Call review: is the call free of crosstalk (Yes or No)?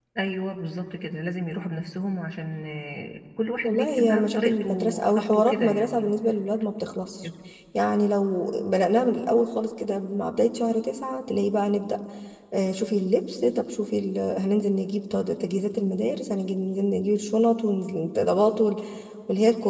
No